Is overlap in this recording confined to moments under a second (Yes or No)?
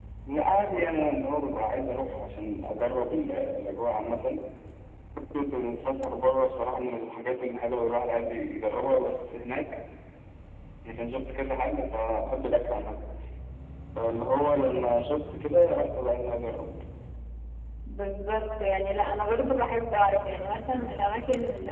Yes